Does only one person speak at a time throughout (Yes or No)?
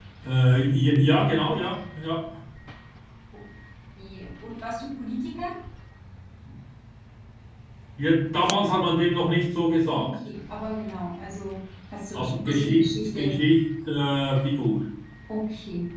No